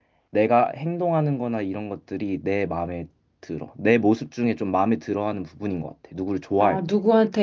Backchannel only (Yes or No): No